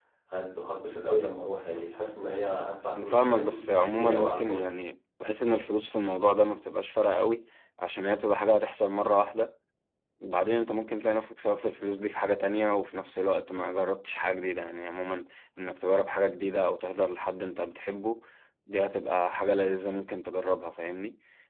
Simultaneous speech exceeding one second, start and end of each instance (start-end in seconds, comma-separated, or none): 2.9-4.7